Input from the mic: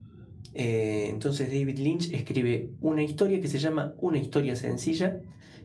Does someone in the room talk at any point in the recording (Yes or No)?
Yes